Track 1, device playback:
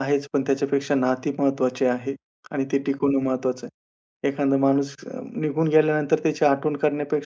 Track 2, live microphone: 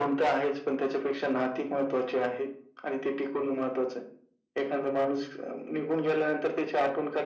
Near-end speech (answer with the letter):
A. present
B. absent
B